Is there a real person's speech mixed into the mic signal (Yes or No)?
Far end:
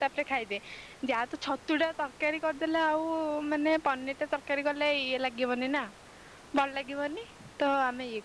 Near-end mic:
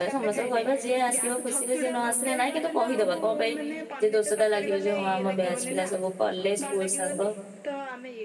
Yes